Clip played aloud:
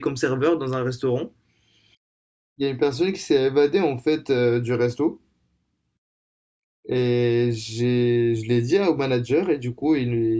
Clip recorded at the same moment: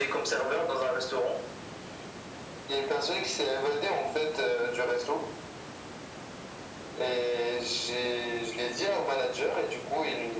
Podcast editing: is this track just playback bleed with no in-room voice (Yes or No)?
Yes